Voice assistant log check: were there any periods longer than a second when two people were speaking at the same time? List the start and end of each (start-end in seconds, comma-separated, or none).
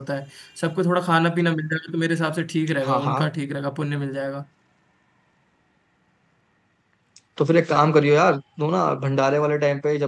none